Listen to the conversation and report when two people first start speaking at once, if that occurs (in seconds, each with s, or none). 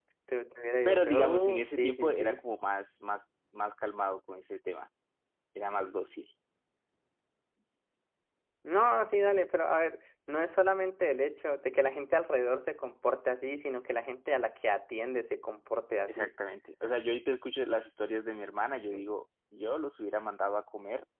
0.8 s